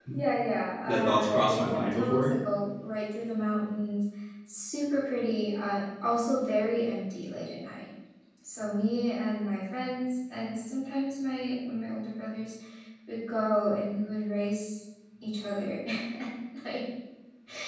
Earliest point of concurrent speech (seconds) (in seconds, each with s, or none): 0.9 s